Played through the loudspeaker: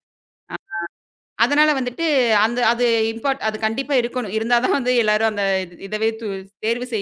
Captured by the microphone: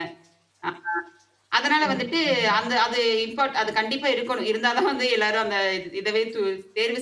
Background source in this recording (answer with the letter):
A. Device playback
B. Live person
B